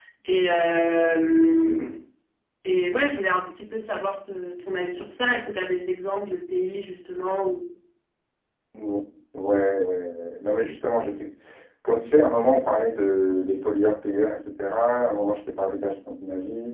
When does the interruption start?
none

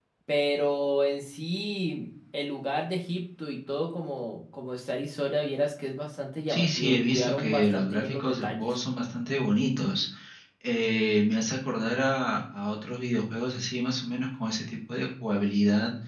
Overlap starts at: 6.5 s

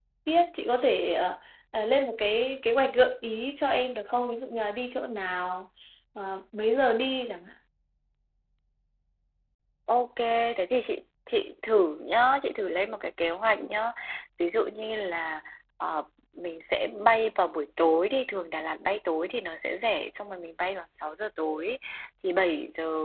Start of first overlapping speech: none

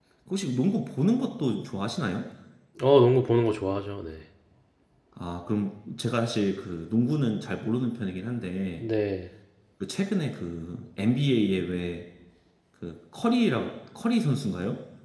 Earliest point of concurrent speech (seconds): none

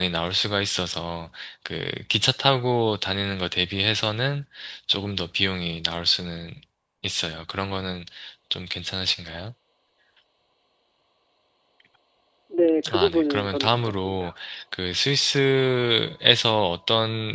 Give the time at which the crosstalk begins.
12.9 s

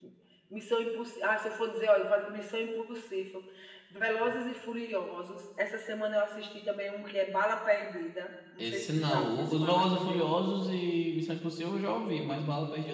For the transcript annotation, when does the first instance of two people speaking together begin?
8.6 s

